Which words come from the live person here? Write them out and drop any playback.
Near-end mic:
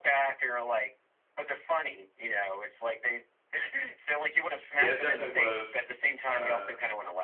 Yeah, it definitely was uh

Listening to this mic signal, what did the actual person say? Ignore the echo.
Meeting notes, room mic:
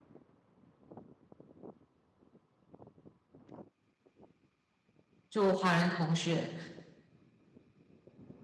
就华人同学，

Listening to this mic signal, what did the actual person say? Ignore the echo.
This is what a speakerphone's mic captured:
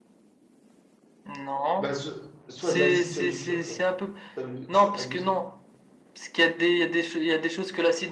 Bah, so- soit de l'acide, soit du feu, frère. C'est abu- c'est abusé.

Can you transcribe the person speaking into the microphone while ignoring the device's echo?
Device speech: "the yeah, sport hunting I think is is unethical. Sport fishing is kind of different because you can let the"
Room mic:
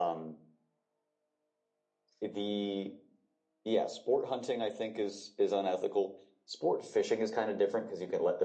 none

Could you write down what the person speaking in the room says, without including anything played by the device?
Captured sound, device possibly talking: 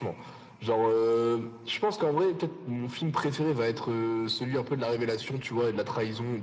none

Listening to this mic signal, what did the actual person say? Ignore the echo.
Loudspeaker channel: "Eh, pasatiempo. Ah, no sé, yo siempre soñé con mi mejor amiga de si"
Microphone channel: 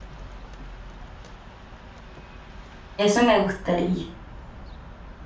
Eso me gustaría.

